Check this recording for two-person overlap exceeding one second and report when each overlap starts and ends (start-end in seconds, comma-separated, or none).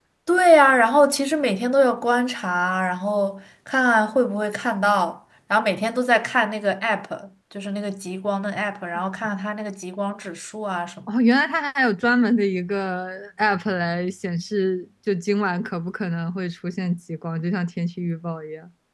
none